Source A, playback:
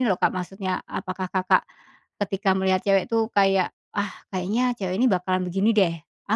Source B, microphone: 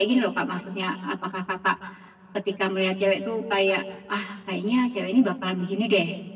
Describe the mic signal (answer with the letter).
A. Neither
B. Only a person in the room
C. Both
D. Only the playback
D